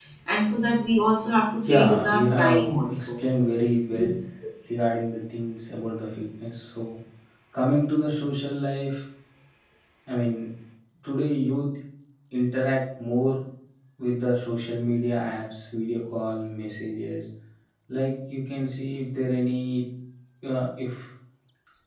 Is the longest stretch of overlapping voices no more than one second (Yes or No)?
No